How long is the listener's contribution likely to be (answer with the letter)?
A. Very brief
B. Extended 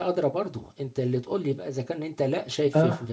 A